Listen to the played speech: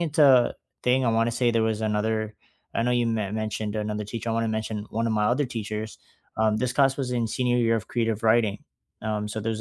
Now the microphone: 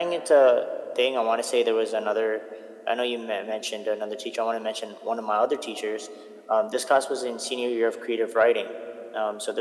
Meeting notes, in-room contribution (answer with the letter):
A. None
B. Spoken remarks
A